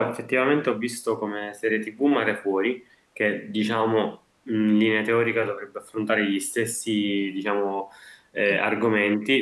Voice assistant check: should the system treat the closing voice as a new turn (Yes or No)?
No